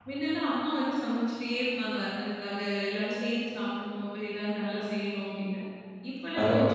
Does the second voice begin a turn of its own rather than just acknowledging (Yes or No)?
Yes